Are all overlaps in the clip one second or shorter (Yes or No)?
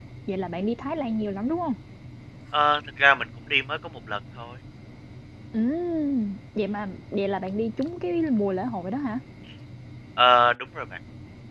Yes